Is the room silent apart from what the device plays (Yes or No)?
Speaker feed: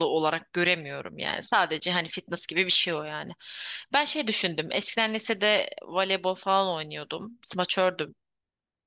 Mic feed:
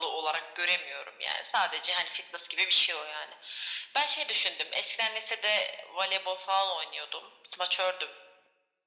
Yes